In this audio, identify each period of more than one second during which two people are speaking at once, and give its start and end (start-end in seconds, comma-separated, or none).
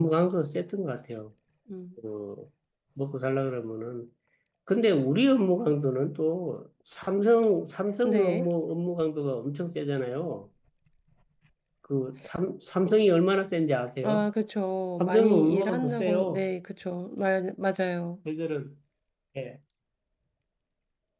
15.0-16.5